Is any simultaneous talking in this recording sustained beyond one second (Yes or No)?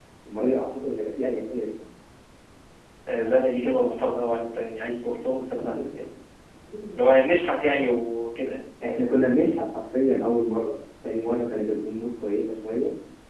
No